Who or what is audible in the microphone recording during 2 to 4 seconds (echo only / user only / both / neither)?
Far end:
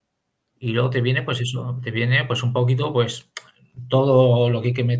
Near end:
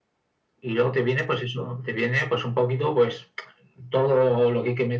echo only